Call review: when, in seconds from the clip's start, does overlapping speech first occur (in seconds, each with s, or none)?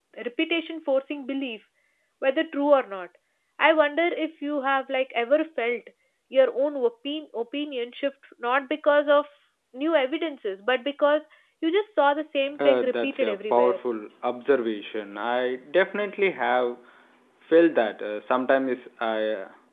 12.5 s